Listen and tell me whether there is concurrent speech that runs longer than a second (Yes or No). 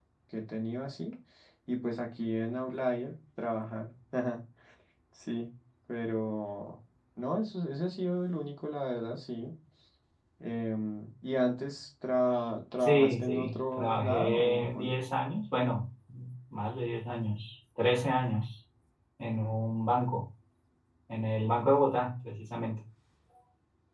Yes